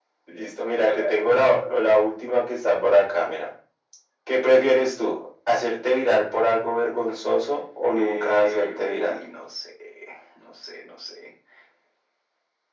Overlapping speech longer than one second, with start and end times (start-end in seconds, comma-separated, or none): 8.0-9.2